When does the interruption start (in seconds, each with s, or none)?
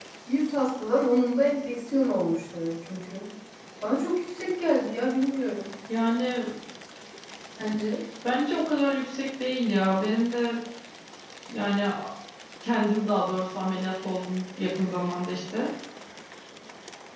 none